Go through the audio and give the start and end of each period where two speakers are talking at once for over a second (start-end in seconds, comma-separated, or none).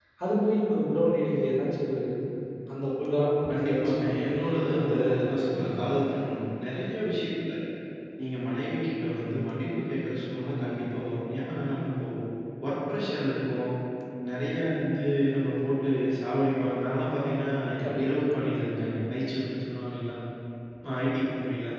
3.5-5.9